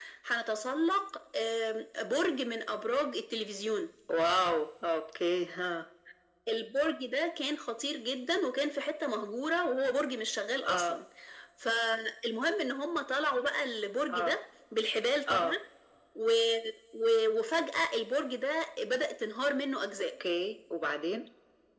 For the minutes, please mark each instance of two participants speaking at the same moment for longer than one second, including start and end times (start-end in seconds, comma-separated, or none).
none